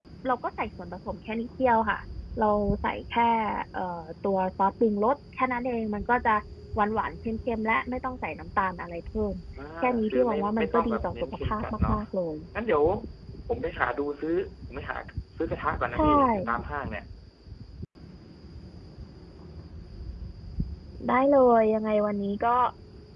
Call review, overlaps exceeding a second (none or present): present